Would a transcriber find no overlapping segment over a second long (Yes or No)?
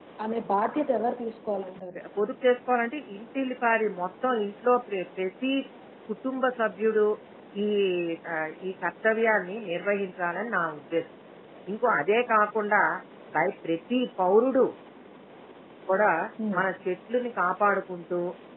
Yes